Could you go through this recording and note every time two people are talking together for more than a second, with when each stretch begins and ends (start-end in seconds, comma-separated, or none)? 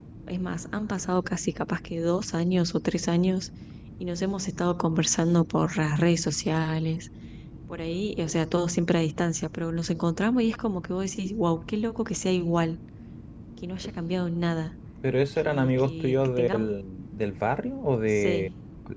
15.4-16.7